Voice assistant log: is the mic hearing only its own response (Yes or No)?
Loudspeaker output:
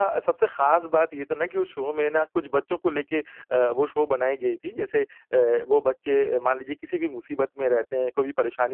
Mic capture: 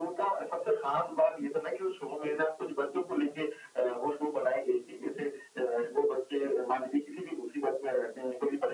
Yes